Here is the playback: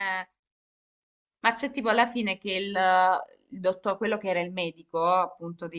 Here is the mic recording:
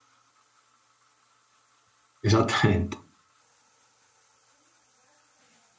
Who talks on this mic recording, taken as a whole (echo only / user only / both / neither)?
user only